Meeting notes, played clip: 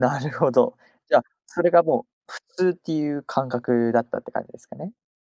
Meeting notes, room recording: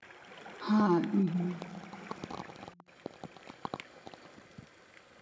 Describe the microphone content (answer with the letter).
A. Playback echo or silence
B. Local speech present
B